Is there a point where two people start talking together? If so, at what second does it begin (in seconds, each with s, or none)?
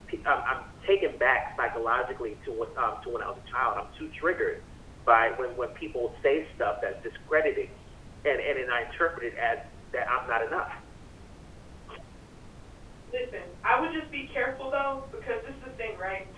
none